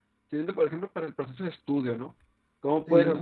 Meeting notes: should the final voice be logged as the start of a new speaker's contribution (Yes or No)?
No